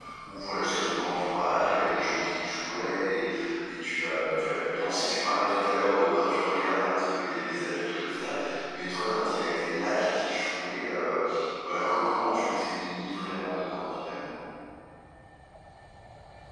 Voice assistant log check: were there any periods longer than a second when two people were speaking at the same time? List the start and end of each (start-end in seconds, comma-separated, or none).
none